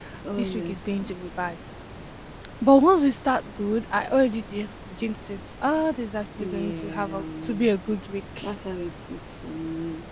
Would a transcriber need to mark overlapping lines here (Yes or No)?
Yes